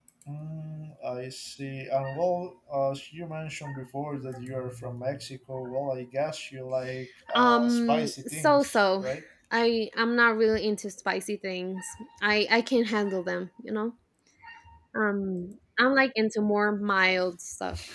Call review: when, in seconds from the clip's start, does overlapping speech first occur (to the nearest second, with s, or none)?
7 s